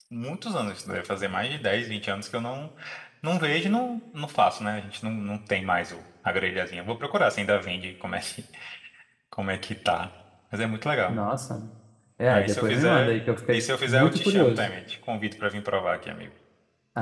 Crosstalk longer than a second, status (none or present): present